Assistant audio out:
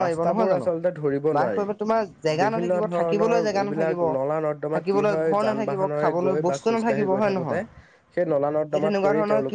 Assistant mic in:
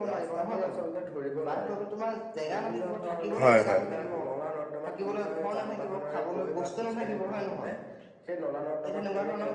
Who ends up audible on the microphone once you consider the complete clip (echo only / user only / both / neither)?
both